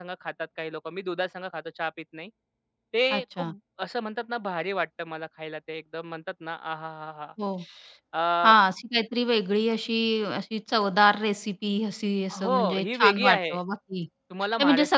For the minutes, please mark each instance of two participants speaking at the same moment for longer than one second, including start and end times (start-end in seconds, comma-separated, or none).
12.3-13.6